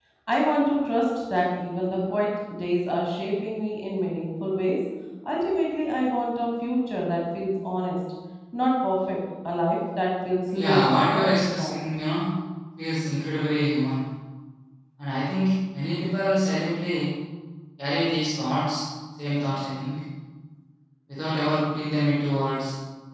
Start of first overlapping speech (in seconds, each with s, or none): 10.5 s